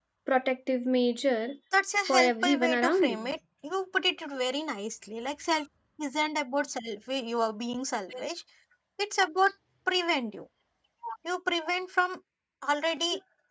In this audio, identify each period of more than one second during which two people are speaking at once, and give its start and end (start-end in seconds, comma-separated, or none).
2.1-3.3